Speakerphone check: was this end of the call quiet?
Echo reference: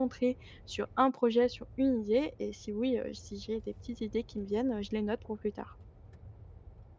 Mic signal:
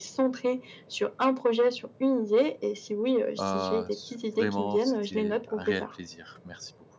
No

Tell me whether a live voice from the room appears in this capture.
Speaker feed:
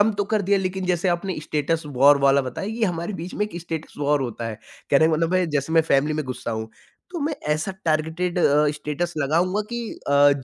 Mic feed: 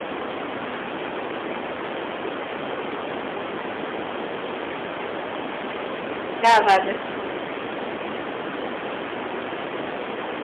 Yes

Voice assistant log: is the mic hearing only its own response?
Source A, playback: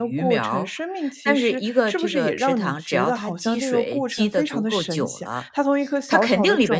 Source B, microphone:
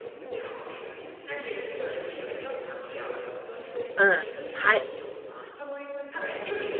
No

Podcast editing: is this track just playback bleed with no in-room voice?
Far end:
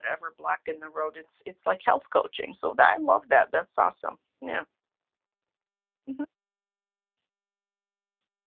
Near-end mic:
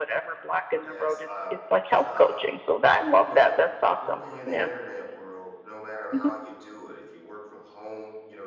No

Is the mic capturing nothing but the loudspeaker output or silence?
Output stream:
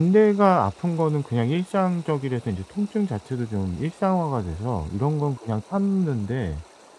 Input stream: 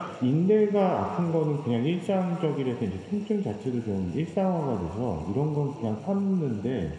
Yes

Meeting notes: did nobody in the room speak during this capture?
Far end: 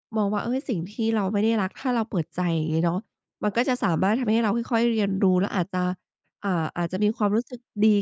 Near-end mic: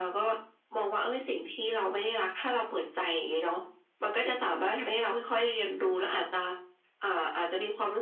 Yes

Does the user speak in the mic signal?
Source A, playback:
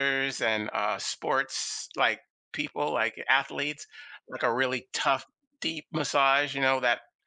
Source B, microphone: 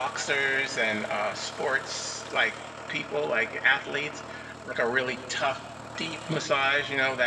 No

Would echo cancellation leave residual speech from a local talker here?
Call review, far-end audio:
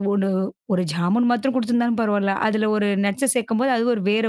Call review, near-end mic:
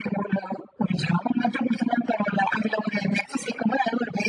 No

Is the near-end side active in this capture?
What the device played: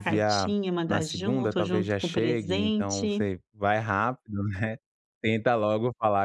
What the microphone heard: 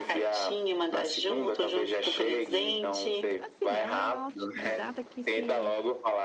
Yes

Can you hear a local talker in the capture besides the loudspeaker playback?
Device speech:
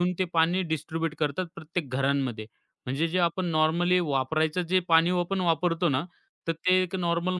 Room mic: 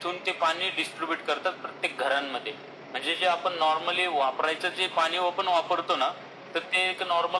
No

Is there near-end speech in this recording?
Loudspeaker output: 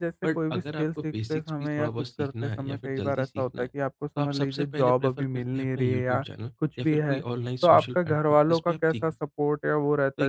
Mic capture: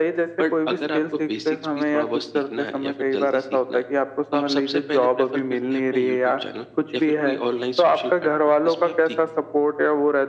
No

